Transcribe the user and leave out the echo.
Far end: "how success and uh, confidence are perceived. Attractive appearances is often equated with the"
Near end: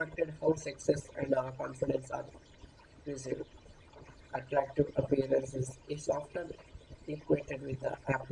none

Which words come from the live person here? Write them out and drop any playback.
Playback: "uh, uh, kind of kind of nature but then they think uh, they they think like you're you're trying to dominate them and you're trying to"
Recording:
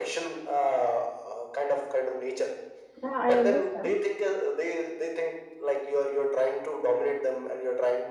yeah i understand

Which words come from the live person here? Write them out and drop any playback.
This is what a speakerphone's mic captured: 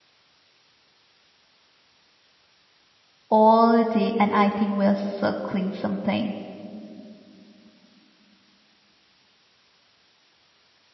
all day and I think we're circling something.

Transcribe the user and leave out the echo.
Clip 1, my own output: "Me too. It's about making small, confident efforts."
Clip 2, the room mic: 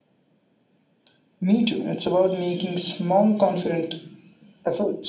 none

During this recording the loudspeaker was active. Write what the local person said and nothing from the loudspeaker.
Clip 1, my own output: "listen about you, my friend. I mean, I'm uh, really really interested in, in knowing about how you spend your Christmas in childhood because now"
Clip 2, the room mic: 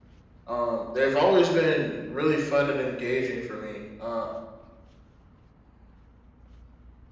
um, they've always been really fun and engaging for me. Uh,

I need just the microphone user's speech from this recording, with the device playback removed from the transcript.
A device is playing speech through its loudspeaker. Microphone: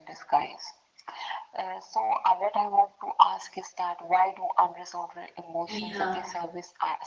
Yeah,

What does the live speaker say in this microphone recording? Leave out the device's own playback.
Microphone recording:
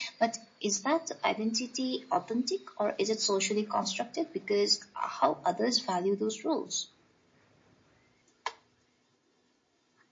none

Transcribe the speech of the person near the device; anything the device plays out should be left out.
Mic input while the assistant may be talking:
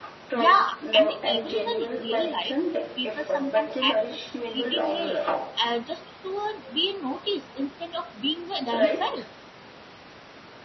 Yeah, and even in a real life, people sometimes act a certain way uh, just to uh, be noticed instead of being themselves.

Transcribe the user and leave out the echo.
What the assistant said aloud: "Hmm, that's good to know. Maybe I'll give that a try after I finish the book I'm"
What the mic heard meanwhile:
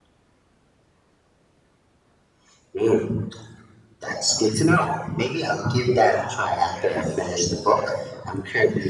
none

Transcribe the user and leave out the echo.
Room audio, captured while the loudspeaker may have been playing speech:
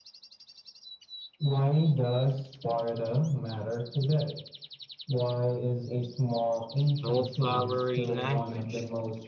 no flowery language,

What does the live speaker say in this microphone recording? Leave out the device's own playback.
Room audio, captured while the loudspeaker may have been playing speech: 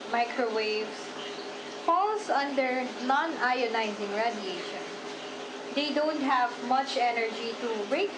none

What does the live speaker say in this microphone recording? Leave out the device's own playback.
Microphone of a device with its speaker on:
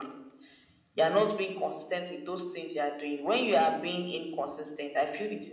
none

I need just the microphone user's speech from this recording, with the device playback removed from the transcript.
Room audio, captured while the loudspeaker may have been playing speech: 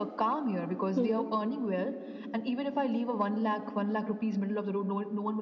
Mhm.

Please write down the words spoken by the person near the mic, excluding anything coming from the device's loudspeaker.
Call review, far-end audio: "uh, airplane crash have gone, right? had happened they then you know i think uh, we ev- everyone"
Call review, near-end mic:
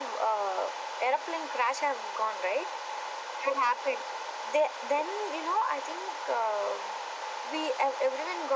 none

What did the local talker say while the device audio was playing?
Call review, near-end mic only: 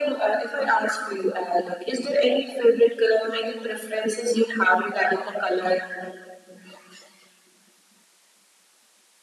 none

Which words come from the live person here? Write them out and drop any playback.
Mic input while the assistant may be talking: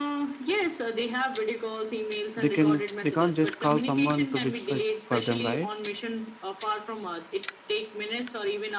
they can they can't just call someone to fix it for them, right?

